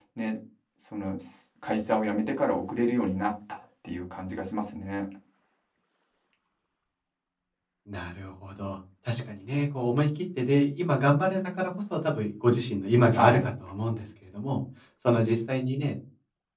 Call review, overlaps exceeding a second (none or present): none